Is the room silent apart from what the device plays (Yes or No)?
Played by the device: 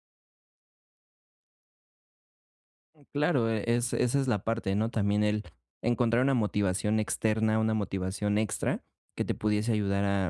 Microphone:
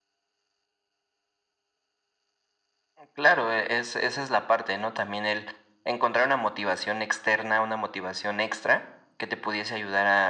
Yes